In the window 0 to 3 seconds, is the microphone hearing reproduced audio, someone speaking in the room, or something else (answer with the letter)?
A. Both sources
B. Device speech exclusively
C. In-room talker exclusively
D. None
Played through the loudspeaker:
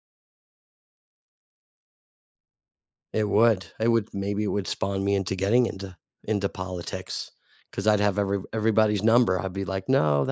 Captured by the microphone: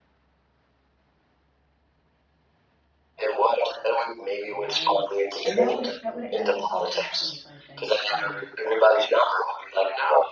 D